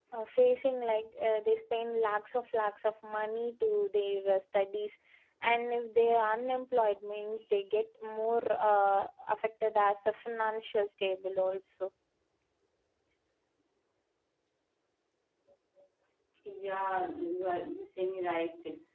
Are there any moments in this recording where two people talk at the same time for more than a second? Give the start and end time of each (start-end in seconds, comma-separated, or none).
none